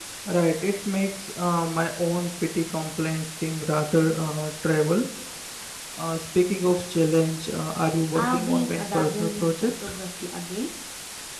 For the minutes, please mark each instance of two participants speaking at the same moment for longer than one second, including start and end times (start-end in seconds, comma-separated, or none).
8.2-9.7